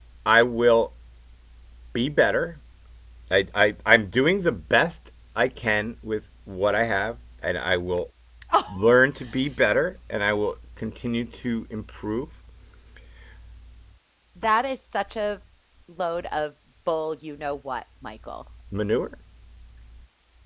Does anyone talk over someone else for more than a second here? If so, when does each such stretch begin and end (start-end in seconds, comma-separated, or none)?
none